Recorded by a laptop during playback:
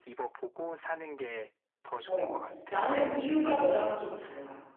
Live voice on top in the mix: Yes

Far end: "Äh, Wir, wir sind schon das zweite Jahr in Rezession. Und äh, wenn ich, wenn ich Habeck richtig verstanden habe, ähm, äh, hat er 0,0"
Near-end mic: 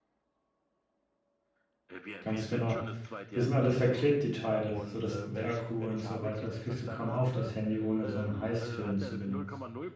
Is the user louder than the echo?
Yes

